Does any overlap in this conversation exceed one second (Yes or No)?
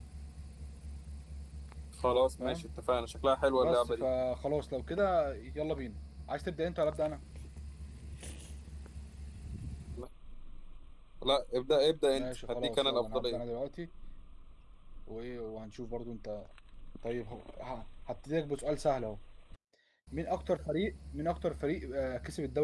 Yes